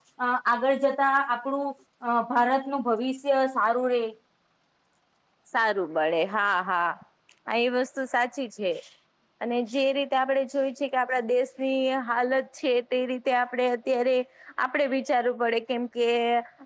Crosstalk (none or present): none